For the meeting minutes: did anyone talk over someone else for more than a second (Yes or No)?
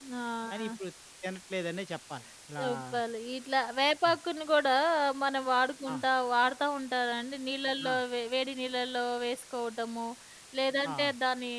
No